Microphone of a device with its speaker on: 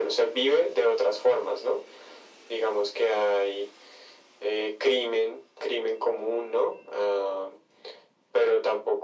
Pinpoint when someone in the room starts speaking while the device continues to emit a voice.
none

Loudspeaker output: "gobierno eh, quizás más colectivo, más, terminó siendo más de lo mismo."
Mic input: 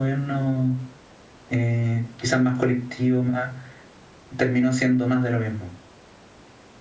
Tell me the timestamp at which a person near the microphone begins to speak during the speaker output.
none

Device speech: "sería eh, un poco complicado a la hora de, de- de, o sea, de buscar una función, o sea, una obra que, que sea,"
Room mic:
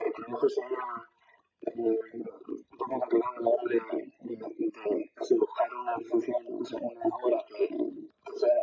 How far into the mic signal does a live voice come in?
none

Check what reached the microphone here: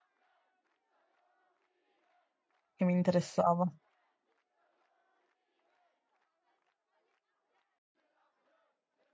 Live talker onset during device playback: 3 s

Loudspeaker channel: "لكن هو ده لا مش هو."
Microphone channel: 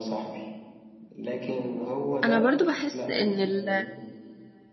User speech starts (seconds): 2 s

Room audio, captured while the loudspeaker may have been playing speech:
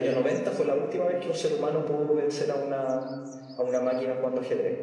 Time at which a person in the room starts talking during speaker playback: none

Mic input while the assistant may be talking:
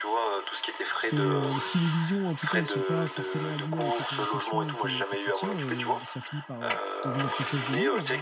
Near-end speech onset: 1 s

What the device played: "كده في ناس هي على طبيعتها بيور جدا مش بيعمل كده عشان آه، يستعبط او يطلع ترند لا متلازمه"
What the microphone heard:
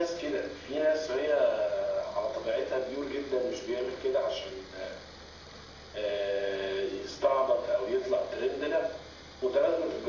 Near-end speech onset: none

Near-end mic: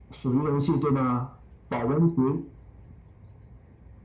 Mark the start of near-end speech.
none

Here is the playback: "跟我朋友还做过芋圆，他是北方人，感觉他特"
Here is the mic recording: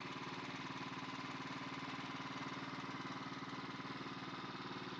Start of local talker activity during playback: none

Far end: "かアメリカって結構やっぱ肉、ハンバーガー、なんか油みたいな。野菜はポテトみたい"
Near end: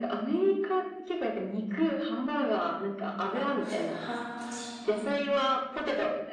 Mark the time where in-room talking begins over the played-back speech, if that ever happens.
3 s

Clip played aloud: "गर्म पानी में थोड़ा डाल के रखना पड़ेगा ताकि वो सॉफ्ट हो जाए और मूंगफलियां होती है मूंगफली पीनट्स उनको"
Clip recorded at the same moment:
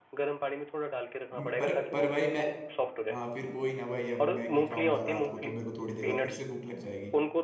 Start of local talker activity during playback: 1 s

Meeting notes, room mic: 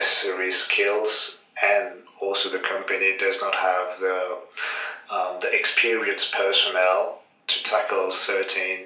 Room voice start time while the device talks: none

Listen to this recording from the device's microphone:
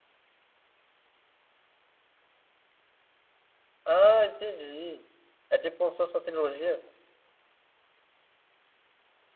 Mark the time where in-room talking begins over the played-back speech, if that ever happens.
4 s

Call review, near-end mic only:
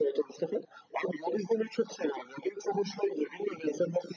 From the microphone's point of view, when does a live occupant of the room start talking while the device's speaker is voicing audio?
none

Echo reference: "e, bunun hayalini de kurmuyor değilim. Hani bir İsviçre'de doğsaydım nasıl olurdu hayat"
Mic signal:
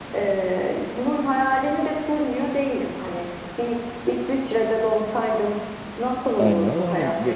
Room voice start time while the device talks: 6 s

